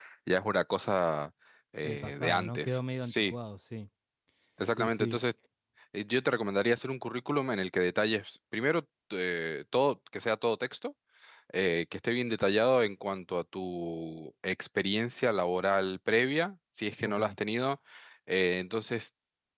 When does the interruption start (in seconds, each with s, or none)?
1.8 s